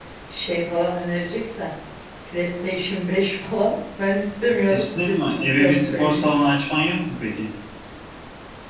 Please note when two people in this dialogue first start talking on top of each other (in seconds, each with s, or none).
4.7 s